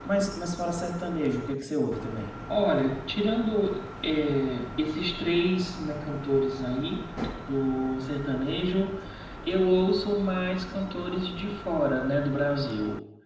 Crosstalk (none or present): none